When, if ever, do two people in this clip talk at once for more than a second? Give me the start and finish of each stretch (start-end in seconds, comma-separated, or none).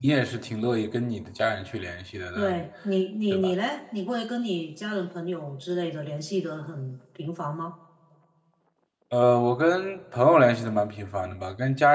none